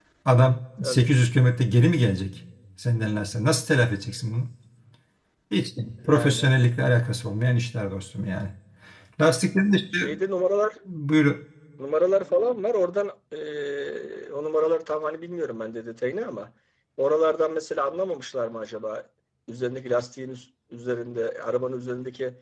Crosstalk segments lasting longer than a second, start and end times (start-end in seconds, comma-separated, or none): none